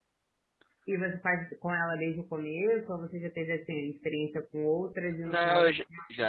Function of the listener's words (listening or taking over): taking over